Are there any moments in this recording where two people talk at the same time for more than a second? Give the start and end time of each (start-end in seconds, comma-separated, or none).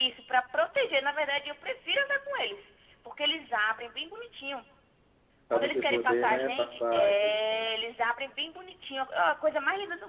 5.5-7.7